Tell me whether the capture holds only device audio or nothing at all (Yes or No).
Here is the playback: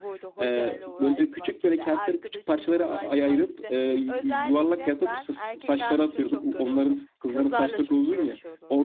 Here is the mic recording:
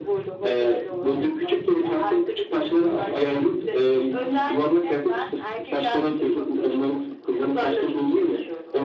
Yes